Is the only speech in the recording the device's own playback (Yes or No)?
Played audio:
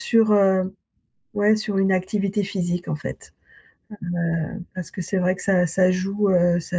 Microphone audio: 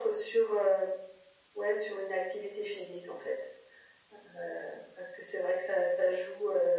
Yes